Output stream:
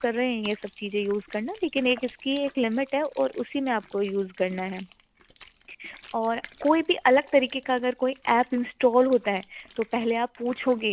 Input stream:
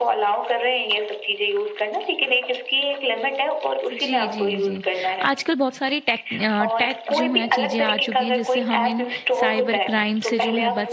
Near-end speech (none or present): present